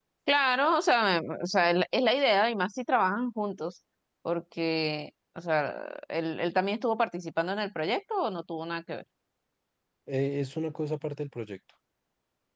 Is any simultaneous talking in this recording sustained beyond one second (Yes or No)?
No